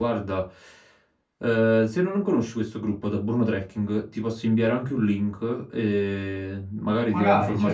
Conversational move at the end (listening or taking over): listening